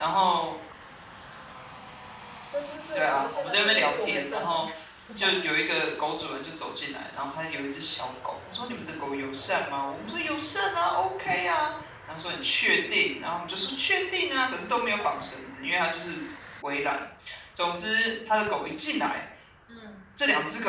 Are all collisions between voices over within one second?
No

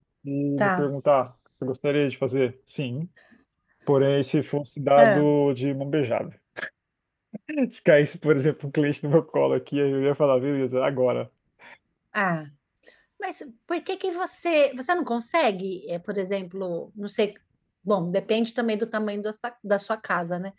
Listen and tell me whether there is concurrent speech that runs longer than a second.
No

